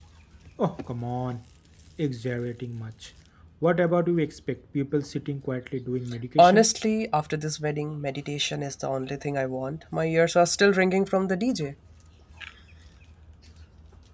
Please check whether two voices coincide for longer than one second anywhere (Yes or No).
No